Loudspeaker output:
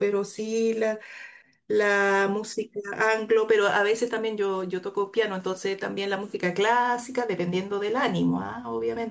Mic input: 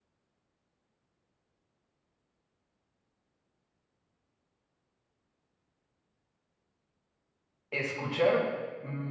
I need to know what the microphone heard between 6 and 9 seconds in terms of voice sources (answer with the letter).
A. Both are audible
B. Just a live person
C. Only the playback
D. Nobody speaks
B